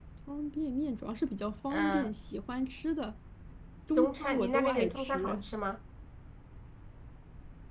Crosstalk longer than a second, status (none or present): present